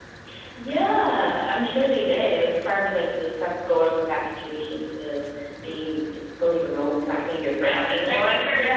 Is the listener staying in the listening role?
No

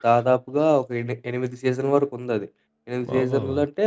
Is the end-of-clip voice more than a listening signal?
No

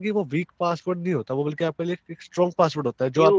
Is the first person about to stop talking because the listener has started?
Yes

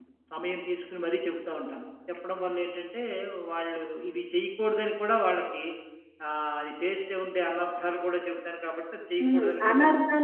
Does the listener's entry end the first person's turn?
Yes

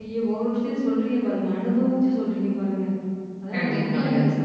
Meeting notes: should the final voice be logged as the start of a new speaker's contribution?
No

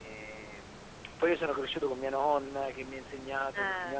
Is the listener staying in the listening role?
Yes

